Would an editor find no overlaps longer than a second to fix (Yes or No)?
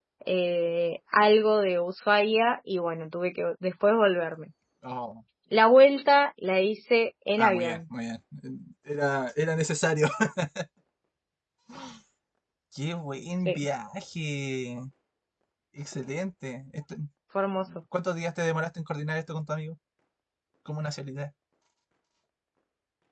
Yes